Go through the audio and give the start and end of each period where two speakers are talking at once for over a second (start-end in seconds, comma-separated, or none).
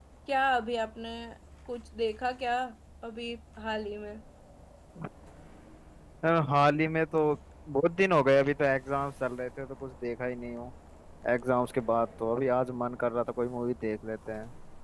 none